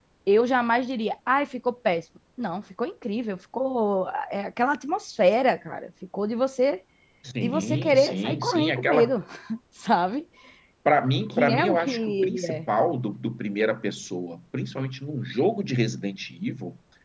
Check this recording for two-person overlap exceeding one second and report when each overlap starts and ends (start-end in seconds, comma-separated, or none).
7.4-9.1, 11.3-12.7